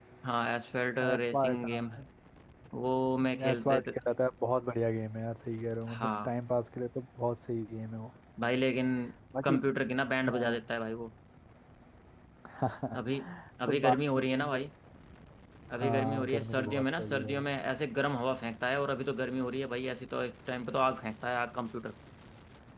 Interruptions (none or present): present